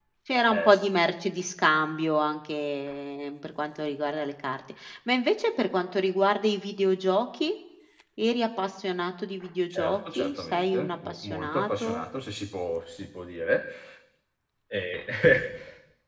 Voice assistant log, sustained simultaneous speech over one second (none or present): present